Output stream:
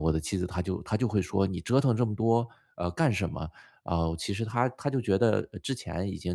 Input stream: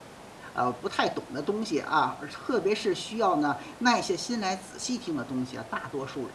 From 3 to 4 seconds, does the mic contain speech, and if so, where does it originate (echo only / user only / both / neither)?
user only